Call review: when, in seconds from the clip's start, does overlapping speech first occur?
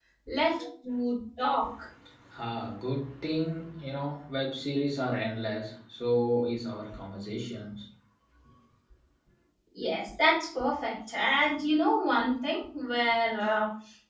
none

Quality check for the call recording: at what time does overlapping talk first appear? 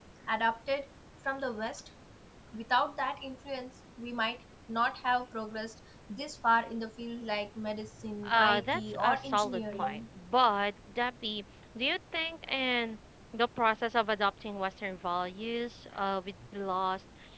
8.2 s

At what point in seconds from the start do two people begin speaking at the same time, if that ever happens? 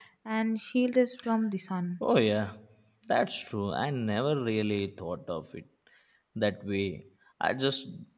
none

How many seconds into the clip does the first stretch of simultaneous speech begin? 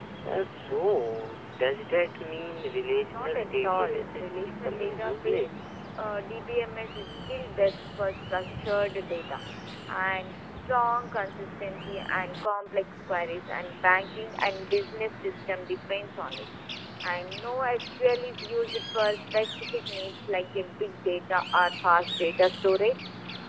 3.1 s

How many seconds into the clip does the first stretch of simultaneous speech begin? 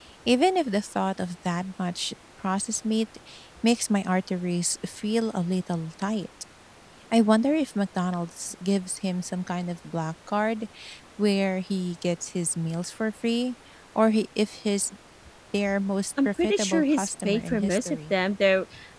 16.2 s

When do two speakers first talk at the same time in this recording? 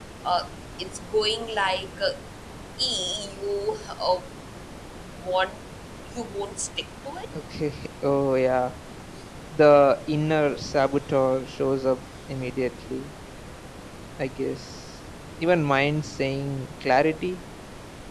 none

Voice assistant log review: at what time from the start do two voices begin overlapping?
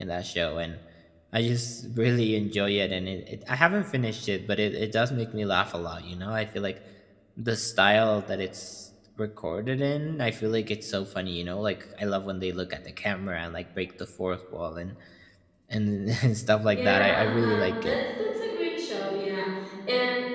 16.7 s

